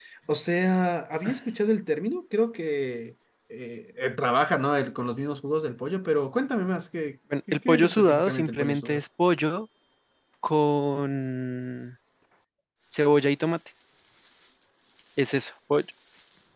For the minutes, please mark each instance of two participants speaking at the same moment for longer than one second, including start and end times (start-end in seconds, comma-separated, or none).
7.5-9.0